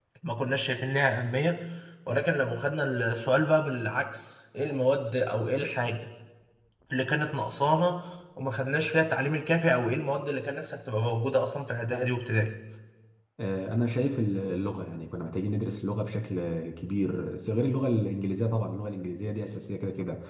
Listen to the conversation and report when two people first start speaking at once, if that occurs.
none

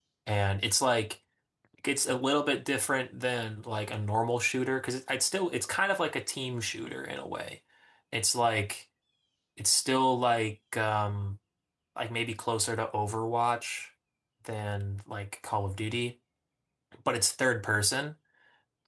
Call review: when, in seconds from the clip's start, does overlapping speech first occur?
none

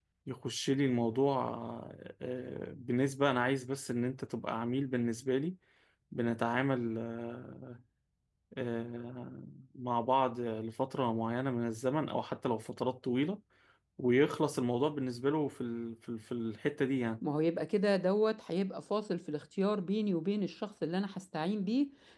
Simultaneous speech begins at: none

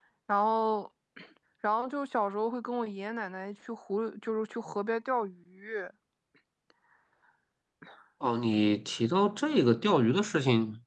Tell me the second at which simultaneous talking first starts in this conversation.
none

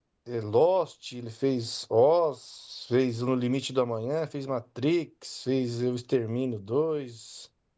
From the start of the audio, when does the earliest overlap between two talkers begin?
none

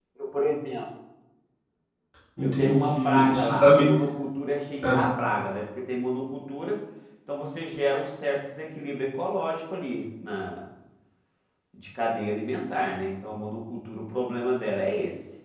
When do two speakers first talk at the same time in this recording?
2 s

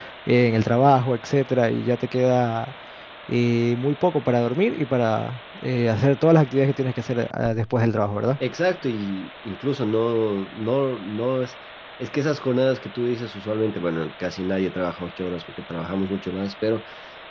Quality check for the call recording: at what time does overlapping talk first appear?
none

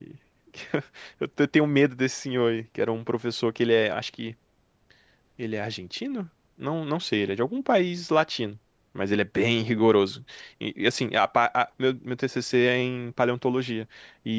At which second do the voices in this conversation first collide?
none

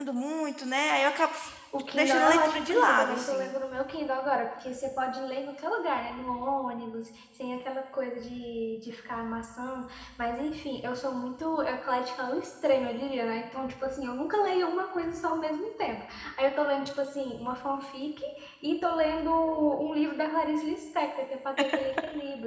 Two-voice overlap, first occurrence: 2 s

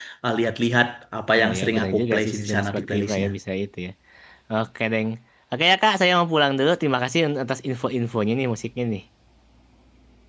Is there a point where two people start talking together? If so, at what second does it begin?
1 s

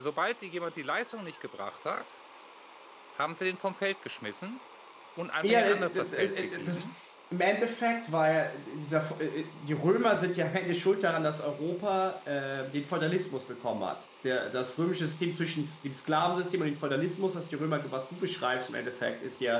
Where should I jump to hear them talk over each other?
5 s

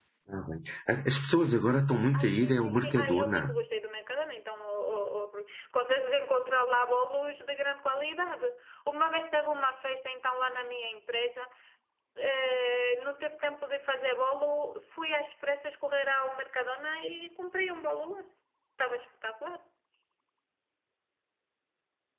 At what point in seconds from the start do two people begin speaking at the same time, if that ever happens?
2 s

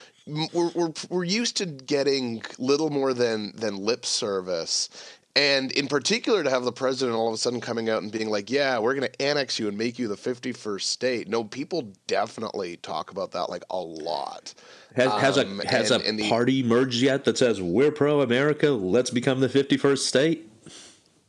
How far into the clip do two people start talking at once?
15 s

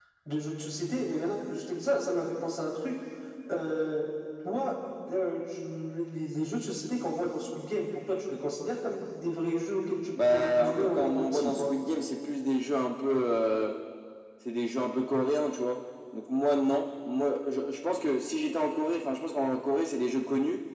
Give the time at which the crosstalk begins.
10 s

